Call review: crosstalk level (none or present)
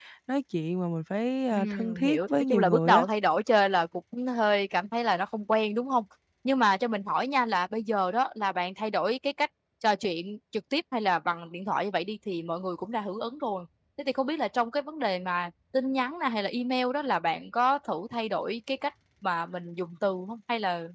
present